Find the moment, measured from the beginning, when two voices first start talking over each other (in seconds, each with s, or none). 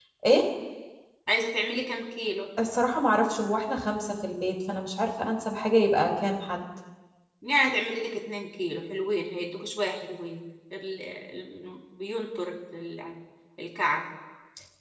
none